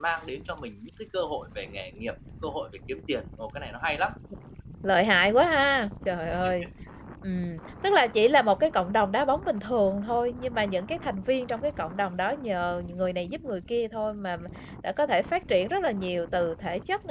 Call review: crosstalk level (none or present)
none